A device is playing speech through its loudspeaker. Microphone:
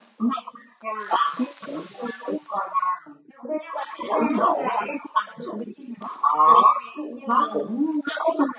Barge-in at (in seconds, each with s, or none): none